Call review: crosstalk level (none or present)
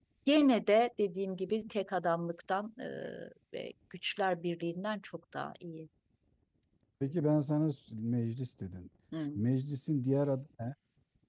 none